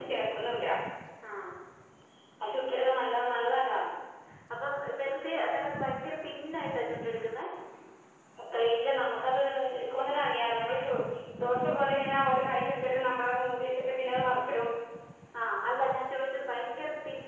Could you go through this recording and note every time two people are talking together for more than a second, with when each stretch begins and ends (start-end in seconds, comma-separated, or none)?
none